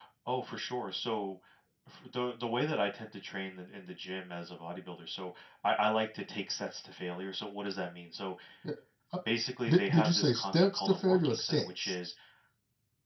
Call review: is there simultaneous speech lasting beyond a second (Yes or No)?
Yes